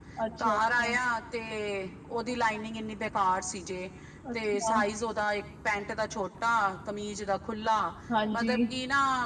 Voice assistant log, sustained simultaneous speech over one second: none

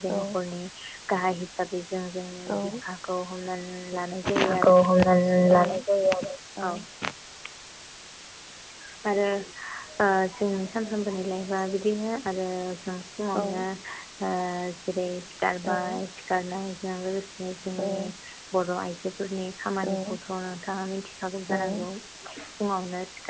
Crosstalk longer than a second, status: none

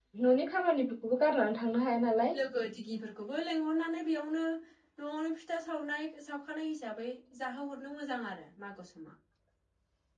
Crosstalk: none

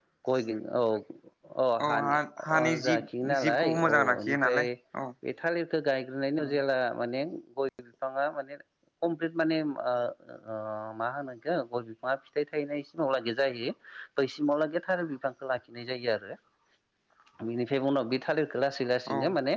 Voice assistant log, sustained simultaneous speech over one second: present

